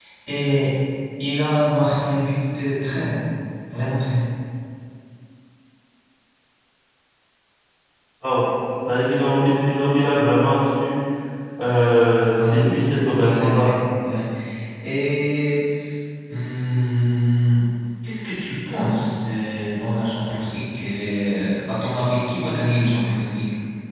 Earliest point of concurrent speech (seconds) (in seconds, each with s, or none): 12.3 s